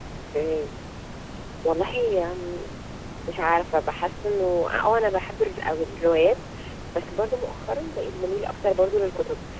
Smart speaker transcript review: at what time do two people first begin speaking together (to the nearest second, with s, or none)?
none